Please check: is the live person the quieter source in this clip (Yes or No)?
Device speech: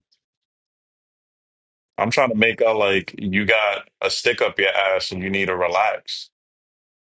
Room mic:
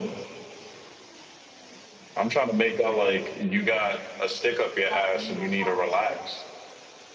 Yes